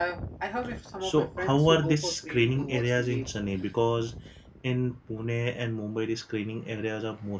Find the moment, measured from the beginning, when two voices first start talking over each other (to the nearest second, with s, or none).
1 s